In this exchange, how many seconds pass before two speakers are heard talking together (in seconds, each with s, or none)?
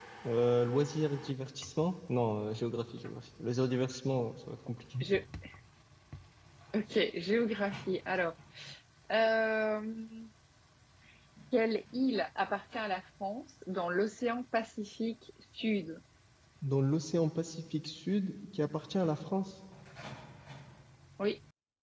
none